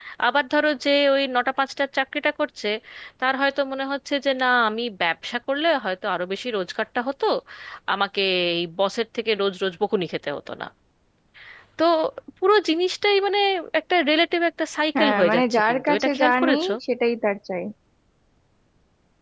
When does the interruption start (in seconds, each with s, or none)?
15.0 s